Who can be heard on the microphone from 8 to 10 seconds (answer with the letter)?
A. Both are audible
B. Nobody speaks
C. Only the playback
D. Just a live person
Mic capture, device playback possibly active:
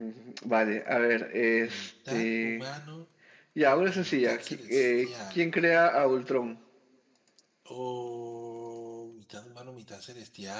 D